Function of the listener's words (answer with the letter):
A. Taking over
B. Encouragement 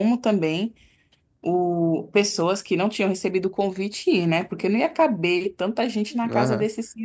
A